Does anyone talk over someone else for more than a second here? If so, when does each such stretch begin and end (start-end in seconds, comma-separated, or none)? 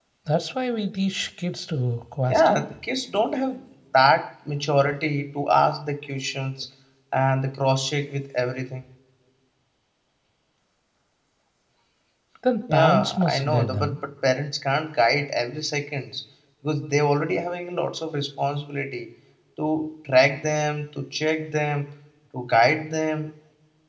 12.7-14.0